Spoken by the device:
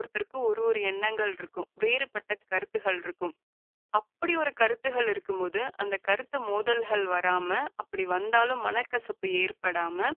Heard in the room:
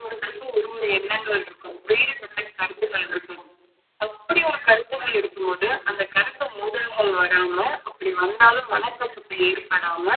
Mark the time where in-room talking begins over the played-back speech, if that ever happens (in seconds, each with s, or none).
none